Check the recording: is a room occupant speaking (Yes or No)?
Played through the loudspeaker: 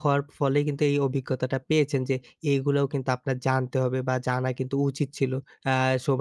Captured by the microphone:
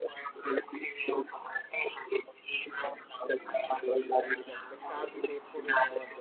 Yes